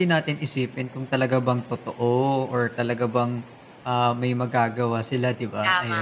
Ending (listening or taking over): taking over